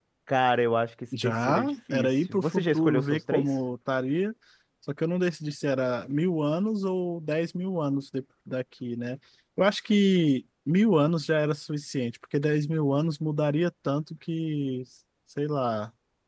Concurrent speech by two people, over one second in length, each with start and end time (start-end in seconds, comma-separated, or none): 1.2-3.5